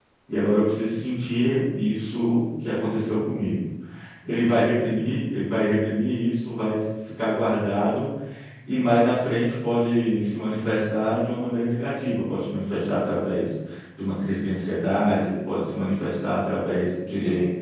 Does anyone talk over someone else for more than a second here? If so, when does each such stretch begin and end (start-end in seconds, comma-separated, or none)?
none